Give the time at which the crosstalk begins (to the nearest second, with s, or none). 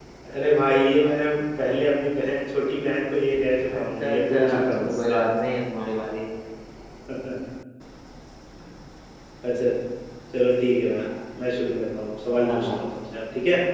4 s